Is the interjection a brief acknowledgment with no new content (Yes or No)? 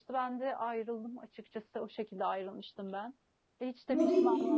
No